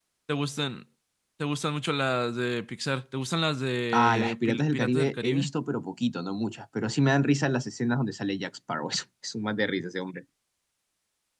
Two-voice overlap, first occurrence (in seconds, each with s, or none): 3.9 s